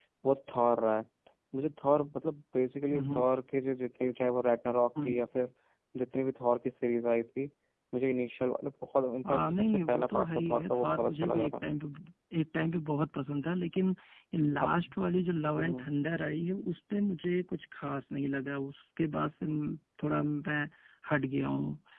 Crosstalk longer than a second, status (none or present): present